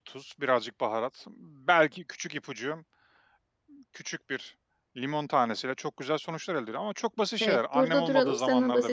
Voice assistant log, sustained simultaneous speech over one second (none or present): present